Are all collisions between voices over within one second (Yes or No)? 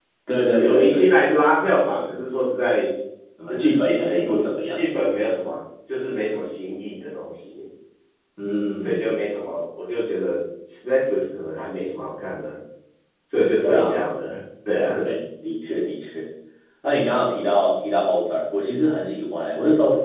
No